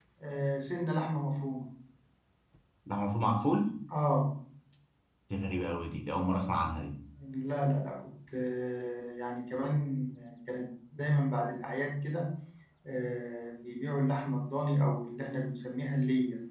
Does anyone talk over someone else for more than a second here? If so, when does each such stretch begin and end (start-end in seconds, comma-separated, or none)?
none